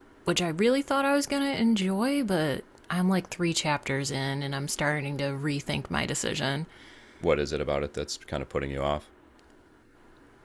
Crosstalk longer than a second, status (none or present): none